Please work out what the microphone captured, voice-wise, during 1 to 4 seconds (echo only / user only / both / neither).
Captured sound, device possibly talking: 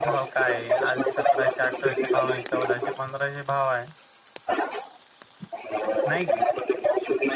both